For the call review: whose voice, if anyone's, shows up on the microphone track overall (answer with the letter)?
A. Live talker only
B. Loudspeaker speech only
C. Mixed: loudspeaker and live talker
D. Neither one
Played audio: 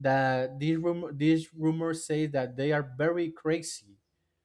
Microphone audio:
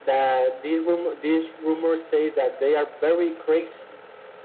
B